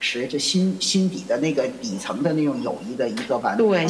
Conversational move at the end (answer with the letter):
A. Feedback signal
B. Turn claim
B